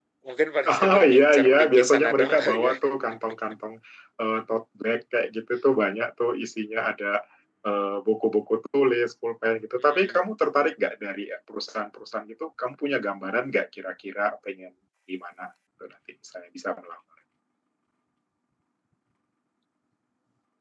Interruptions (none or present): present